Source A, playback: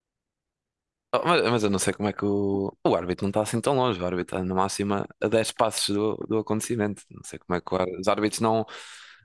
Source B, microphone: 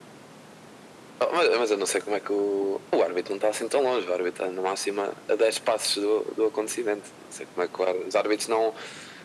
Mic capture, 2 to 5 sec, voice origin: echo only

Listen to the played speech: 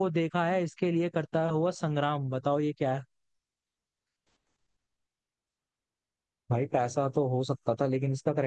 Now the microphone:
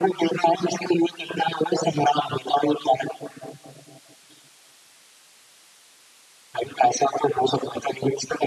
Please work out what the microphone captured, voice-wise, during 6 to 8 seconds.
echo only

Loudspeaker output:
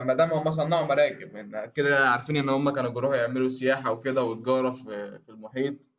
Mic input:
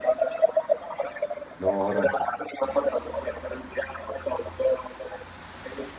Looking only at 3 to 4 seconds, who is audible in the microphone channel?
echo only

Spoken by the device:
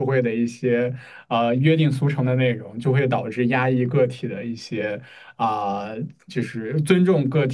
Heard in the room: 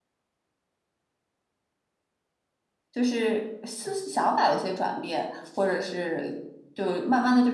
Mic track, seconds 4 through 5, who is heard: user only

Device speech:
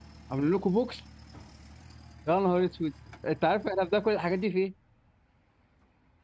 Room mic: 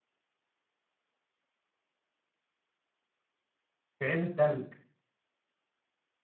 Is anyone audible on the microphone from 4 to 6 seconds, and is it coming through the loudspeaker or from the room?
user only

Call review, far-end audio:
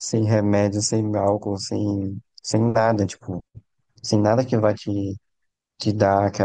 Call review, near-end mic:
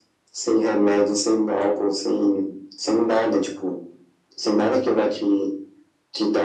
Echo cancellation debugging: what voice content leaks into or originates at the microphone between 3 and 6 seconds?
echo only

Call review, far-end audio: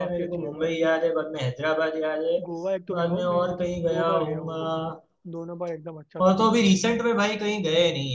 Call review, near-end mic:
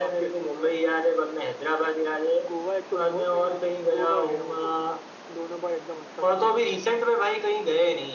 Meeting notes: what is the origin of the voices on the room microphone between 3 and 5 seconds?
echo only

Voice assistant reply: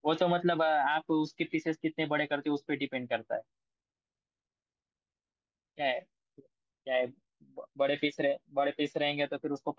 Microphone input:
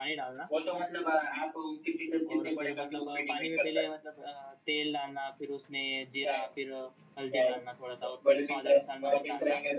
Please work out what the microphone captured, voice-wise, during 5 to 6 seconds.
user only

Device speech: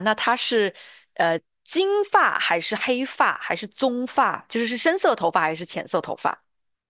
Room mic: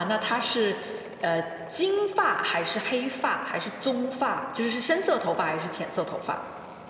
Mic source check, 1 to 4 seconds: echo only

